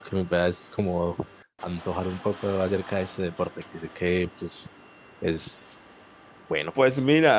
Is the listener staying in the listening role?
No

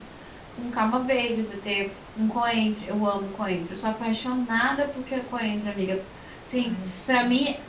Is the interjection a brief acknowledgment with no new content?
Yes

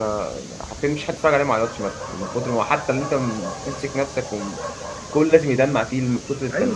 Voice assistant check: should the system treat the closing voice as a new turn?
Yes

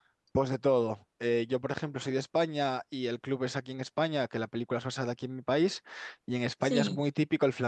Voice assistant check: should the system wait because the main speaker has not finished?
Yes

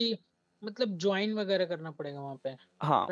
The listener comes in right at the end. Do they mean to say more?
Yes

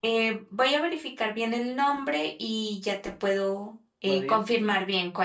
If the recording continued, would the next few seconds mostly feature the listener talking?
Yes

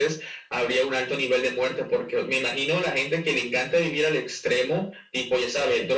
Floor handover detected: No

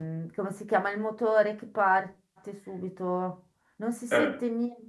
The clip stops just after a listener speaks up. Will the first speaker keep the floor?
Yes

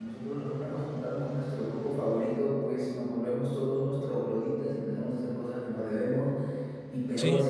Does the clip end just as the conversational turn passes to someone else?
No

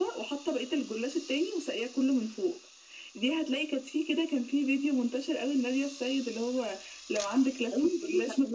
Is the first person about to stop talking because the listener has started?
Yes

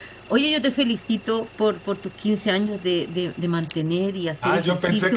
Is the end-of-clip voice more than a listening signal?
Yes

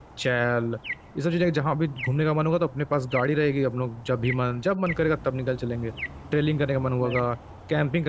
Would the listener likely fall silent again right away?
Yes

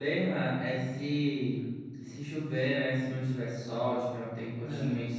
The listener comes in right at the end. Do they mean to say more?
No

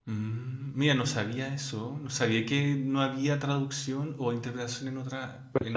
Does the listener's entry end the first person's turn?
Yes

